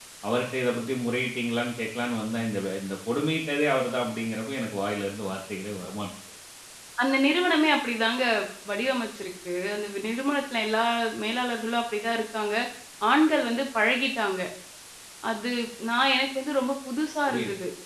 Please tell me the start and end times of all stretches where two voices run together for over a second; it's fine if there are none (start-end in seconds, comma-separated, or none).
none